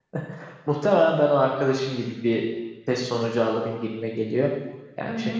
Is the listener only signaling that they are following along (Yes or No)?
Yes